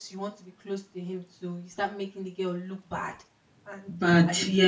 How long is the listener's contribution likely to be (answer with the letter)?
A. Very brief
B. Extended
A